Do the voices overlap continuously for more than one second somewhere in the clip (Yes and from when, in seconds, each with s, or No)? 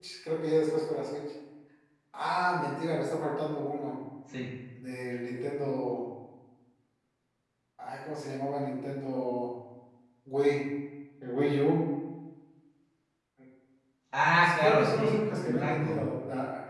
Yes, from 14.6 s